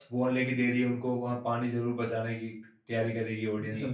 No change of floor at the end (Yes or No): No